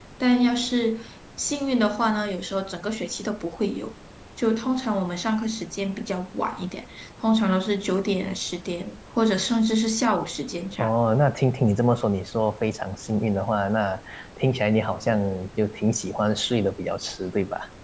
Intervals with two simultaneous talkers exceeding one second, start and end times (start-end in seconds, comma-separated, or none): none